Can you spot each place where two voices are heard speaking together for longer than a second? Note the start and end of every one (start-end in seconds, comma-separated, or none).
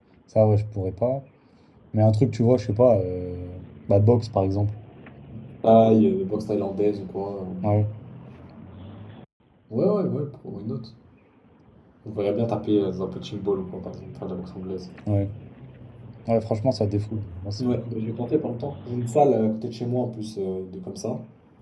none